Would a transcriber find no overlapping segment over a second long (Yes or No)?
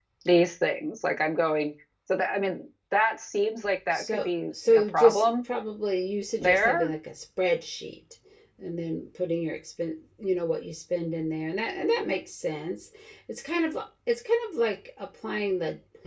No